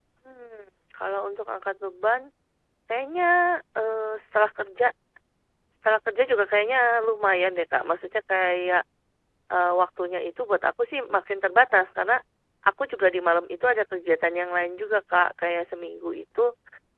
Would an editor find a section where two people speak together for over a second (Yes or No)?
No